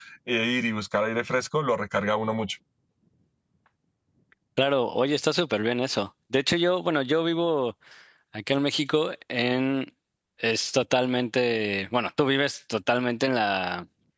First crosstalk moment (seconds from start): none

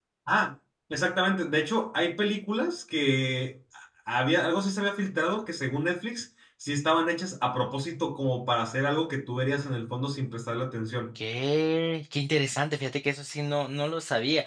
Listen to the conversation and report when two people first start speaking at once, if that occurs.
none

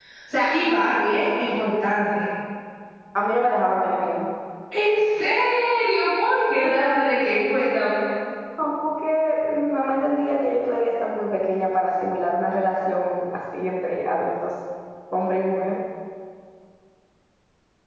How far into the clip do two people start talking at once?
none

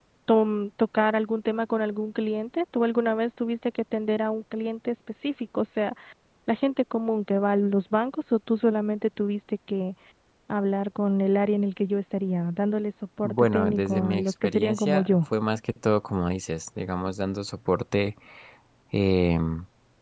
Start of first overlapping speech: 13 s

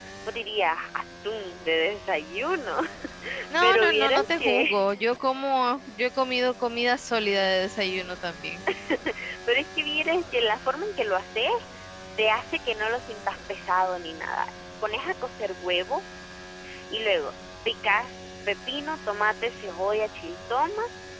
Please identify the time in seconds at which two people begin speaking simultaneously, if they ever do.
4 s

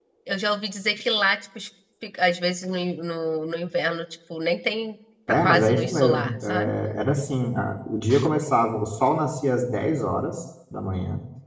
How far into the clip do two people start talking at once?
5 s

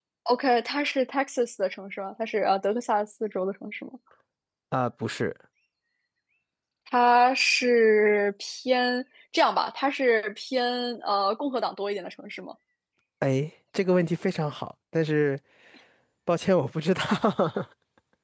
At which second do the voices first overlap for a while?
none

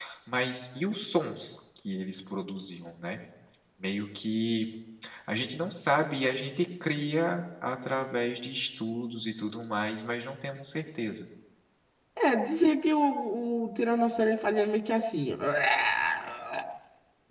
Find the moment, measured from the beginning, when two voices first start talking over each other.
none

